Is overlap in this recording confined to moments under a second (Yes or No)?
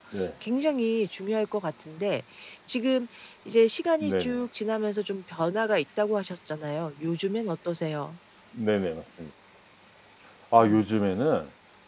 Yes